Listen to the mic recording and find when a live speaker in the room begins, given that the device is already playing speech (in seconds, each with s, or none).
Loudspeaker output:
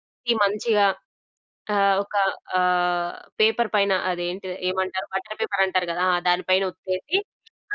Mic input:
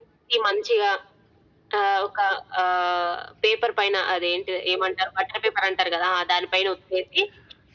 none